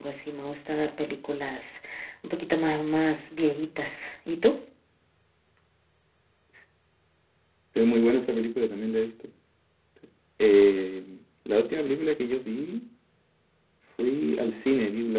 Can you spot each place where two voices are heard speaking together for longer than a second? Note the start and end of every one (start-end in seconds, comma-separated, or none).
none